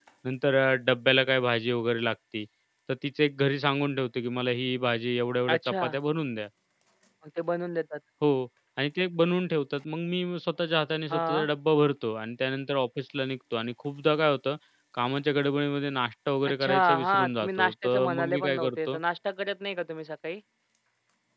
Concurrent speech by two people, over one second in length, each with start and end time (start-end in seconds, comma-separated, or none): 16.4-19.0